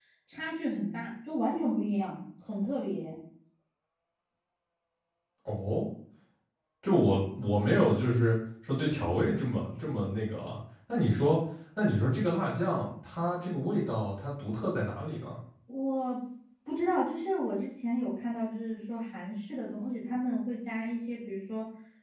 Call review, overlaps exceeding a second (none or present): none